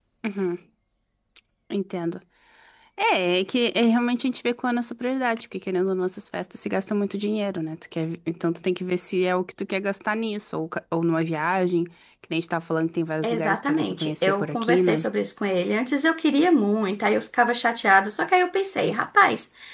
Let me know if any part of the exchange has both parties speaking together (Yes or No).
Yes